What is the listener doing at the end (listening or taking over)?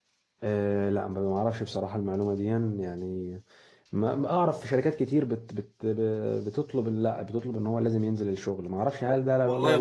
taking over